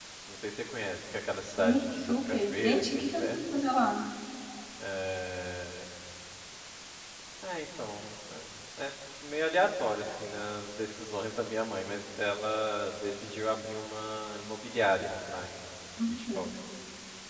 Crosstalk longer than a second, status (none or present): present